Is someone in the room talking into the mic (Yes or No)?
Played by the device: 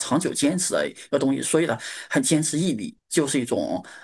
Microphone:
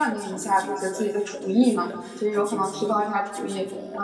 Yes